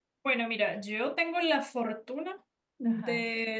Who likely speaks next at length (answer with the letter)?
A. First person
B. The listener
A